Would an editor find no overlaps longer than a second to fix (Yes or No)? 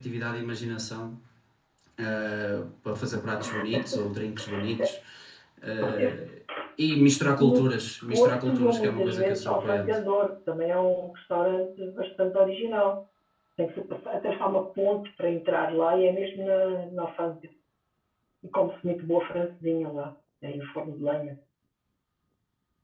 No